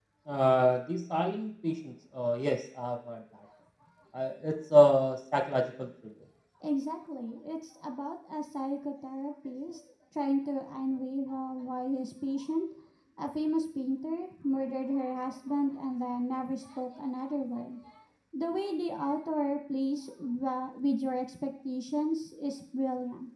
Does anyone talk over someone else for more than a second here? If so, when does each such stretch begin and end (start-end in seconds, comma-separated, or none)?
none